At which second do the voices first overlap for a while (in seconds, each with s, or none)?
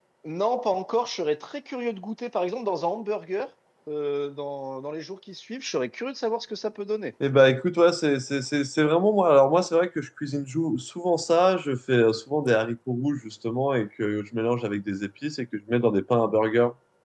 none